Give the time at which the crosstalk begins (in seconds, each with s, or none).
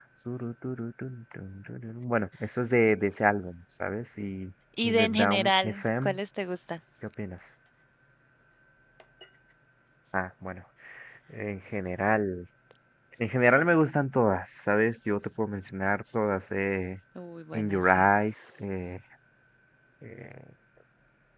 4.8 s